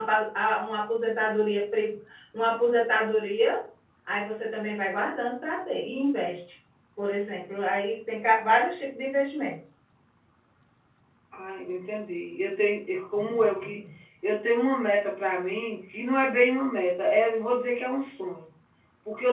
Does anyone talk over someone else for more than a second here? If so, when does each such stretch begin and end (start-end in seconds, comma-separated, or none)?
none